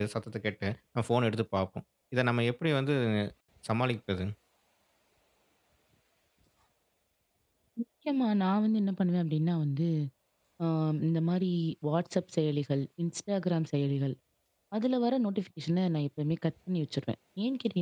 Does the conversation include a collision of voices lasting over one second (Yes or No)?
No